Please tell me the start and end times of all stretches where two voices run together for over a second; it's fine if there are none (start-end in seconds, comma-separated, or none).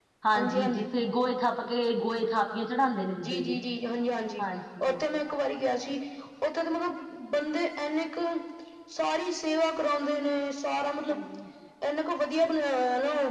none